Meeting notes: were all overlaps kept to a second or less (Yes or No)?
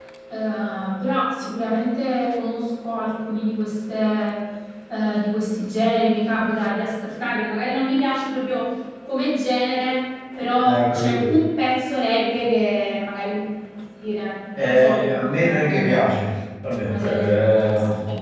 No